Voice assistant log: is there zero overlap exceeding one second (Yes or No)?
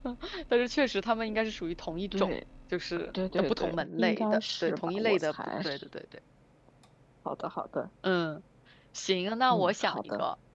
No